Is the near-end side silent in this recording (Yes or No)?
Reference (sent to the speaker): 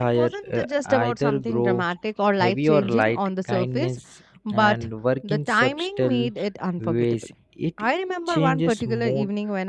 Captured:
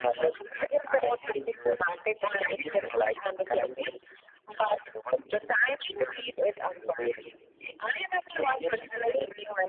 Yes